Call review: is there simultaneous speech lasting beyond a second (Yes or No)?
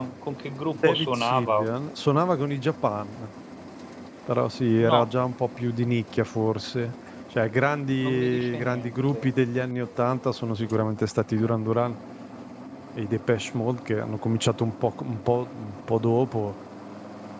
Yes